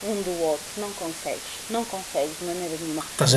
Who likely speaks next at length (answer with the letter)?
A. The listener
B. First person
A